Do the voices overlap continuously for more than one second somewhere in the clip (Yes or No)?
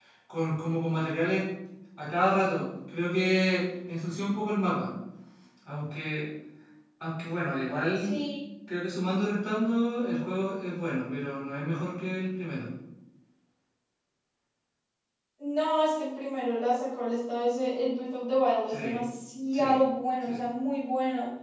No